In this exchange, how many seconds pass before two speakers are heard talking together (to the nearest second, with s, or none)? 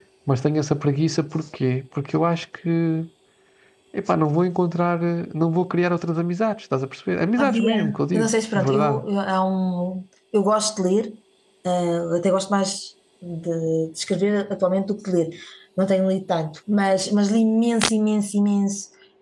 7 s